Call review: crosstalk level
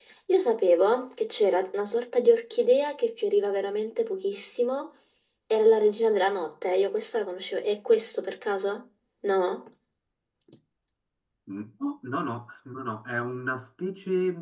none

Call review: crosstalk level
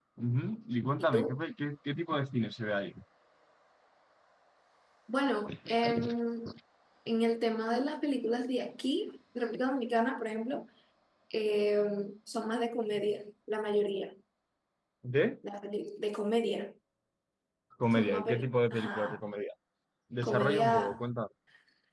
present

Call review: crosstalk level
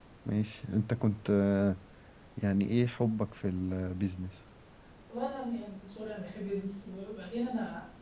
none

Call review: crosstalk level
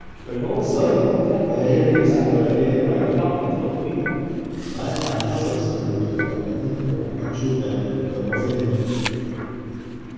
present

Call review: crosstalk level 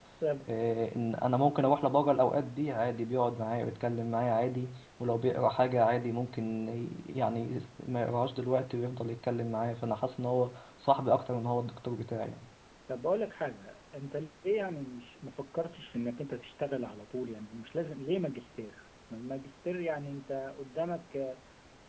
none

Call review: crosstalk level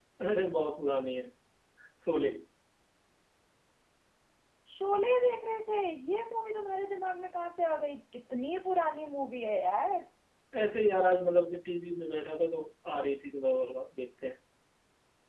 none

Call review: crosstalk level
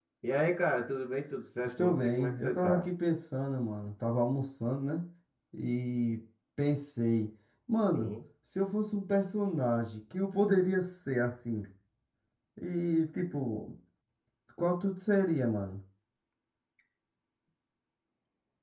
present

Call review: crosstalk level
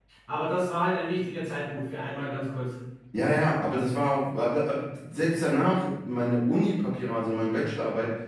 none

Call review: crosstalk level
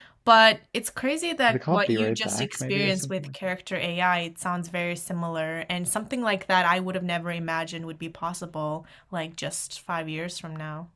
present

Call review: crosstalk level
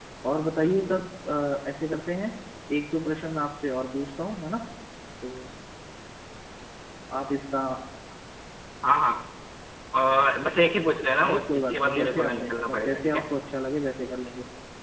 present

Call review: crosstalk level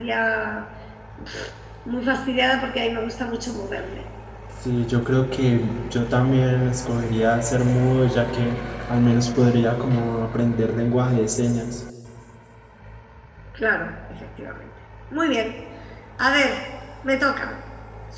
none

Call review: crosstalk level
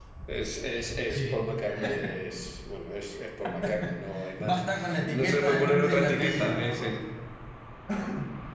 present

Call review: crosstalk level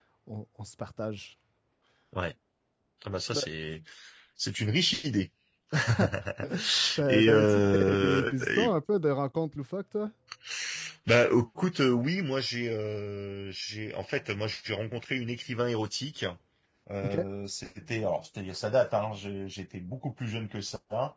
present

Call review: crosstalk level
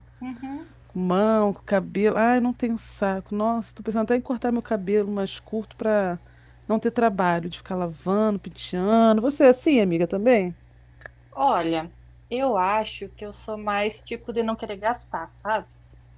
none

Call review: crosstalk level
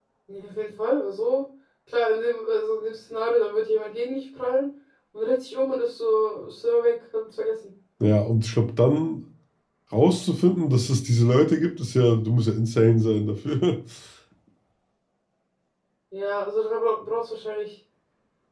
none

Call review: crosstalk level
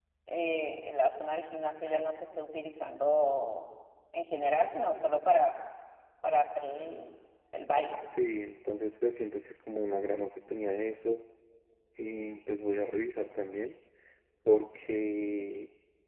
none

